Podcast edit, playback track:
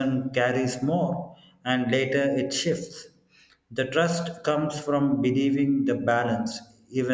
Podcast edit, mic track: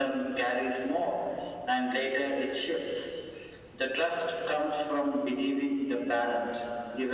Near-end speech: none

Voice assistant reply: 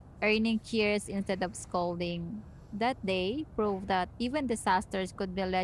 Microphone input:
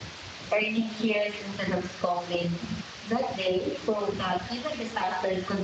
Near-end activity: none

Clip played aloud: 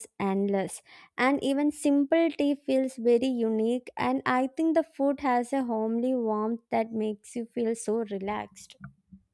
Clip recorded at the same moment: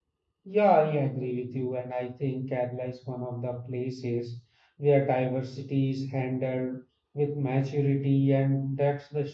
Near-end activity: present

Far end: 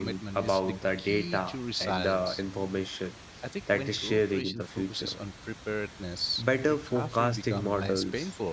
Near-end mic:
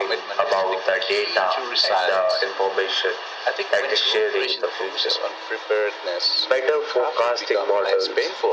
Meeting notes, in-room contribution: none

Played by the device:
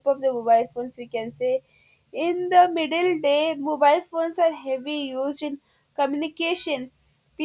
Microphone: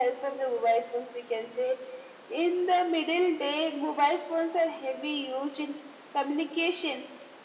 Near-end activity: none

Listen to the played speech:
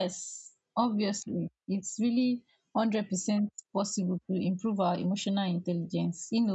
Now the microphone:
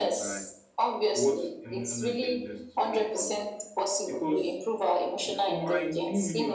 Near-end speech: present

